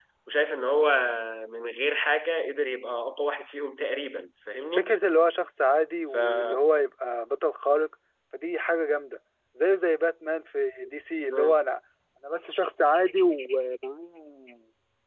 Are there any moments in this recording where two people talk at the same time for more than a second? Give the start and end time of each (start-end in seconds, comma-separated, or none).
none